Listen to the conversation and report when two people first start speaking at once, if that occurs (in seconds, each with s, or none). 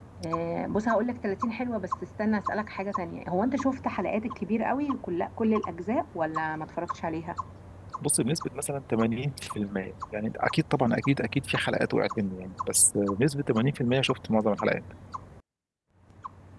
none